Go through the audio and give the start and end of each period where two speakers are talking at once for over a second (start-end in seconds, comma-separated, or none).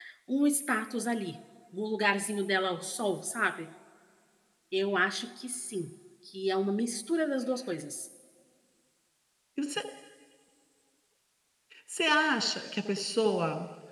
none